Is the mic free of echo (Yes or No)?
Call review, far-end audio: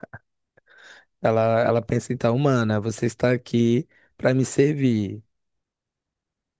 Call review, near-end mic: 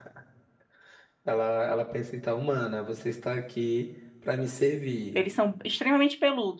No